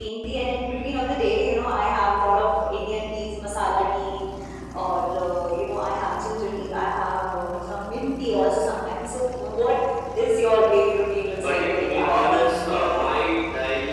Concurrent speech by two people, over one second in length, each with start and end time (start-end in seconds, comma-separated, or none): 11.4-13.2